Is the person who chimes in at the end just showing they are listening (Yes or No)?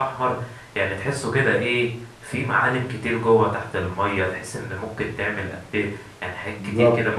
Yes